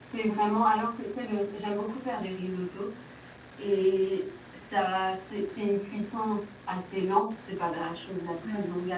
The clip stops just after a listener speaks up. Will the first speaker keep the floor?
Yes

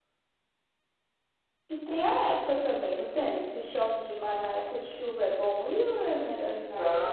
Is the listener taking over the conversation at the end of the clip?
Yes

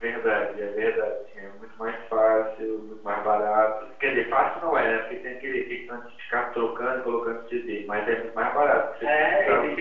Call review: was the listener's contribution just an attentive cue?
No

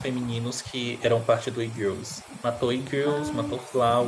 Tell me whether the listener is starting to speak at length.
No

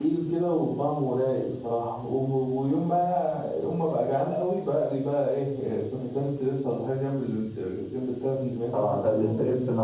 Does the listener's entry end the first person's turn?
Yes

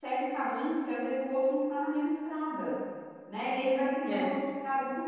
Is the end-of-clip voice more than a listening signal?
No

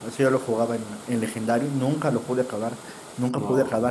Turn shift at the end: No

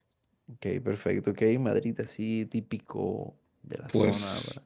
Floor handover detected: Yes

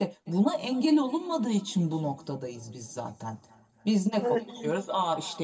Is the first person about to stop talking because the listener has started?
No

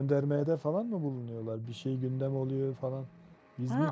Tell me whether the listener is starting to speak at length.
Yes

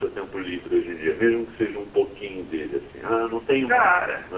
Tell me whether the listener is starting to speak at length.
Yes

